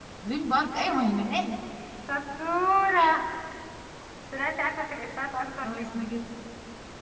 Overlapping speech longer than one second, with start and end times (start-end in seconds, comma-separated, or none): none